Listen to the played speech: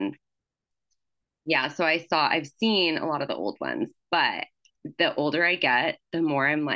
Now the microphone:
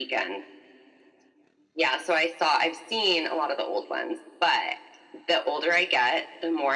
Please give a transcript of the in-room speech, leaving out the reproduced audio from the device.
none

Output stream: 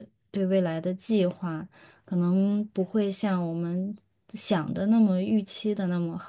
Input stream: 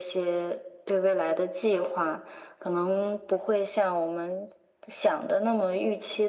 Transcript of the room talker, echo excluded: none

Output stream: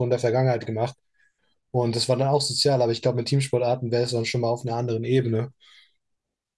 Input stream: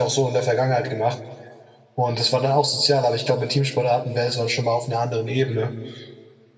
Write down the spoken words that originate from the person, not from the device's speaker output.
none

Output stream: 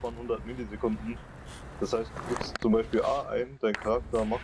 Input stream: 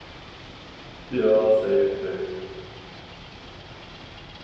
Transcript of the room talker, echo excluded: Ja, safe, safe.

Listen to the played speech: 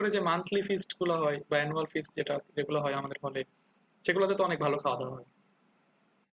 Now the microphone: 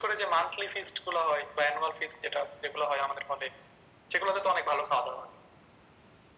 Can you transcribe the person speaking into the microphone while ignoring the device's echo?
none

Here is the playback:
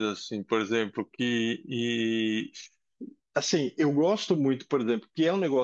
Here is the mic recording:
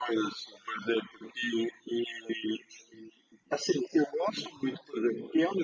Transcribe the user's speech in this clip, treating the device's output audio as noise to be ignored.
none

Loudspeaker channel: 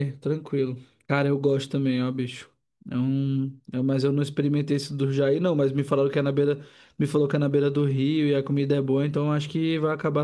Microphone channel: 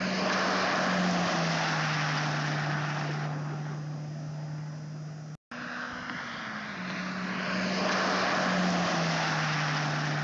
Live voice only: none

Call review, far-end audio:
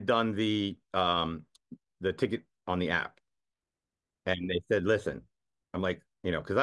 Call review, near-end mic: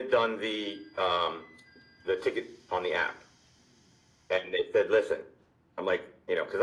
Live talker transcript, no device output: none

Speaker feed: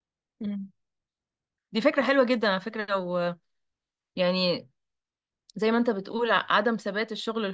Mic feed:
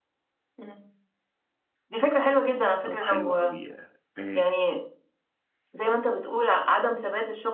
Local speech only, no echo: طب حلو قوي آه،

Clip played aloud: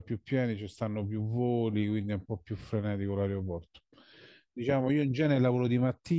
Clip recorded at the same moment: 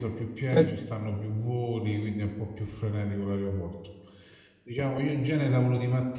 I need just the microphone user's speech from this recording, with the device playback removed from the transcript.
Cioè,

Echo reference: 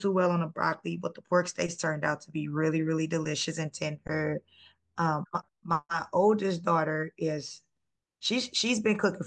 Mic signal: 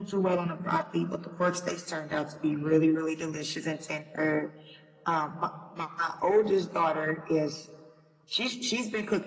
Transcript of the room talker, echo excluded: none

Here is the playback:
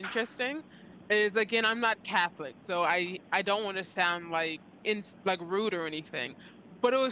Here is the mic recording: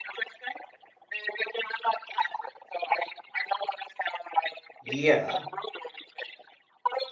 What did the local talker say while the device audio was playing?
Yeah.

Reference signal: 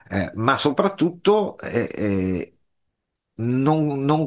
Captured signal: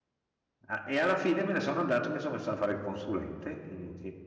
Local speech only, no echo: Ah, E alla fine me ne sono andato, mi sono messo a fare il consulente e,

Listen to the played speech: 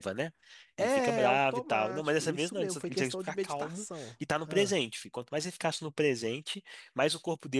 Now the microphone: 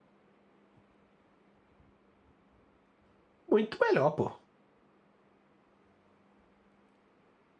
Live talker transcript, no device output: Muito melhor, pô.

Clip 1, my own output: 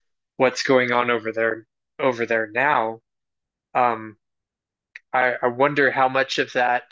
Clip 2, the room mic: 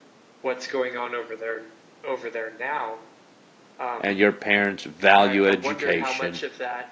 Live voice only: and your parents value education,

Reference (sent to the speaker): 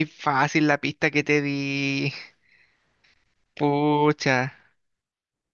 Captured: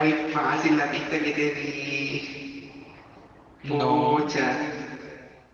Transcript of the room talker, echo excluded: No,

